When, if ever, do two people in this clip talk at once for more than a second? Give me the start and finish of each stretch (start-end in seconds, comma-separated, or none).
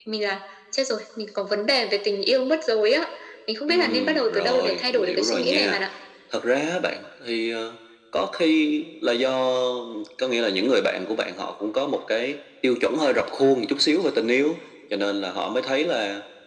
3.7-5.8